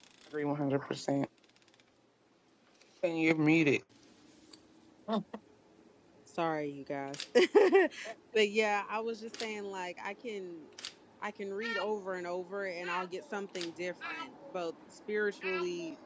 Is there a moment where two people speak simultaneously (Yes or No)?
No